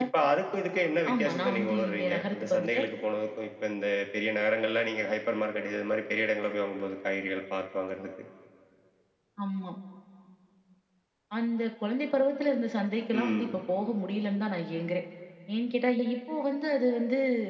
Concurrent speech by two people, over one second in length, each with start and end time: 1.1-2.9

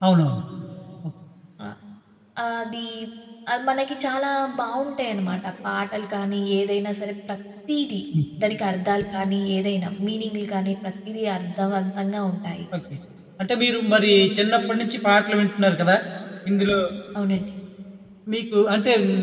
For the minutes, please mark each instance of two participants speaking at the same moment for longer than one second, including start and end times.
none

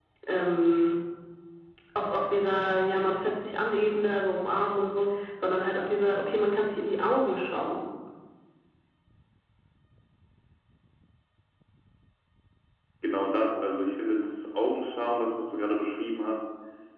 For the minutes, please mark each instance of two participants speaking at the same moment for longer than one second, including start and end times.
none

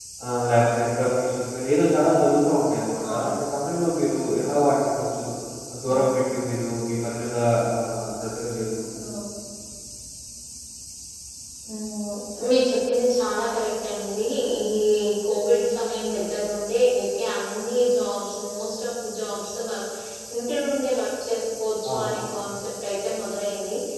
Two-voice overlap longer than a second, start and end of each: none

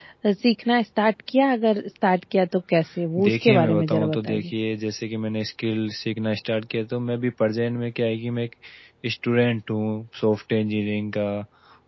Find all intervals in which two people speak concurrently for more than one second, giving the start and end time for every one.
3.2-4.4

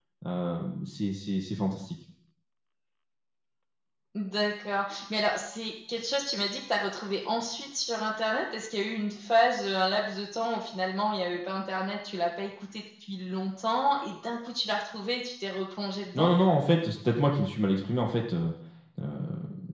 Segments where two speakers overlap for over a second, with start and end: none

